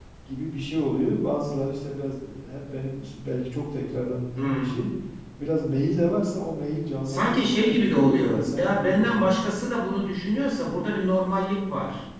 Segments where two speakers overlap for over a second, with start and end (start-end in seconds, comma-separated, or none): 7.0-9.3